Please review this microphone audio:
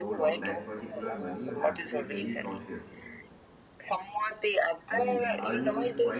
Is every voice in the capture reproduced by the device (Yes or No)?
No